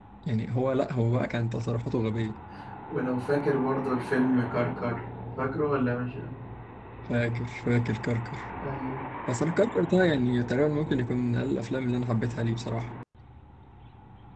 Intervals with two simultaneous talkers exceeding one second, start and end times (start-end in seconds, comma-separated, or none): none